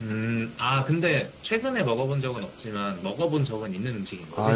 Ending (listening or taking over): taking over